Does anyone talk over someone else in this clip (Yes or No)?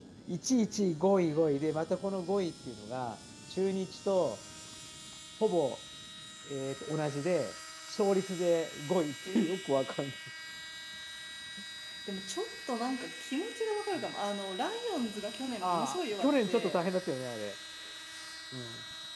Yes